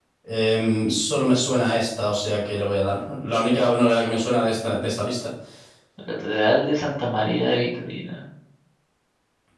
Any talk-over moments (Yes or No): No